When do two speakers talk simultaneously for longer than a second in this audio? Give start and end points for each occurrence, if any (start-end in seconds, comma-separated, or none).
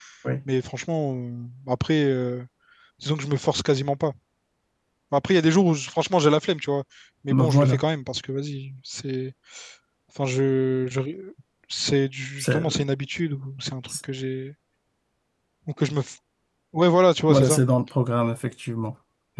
none